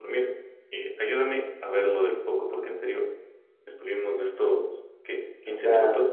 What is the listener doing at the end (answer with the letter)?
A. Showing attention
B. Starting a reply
A